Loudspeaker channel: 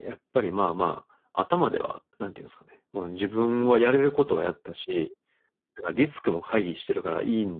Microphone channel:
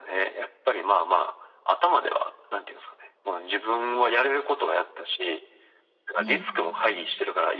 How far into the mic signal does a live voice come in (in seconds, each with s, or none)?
6.2 s